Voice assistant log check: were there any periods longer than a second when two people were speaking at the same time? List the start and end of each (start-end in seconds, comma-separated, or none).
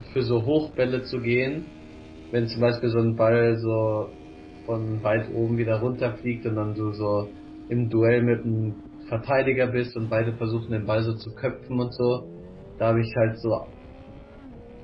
none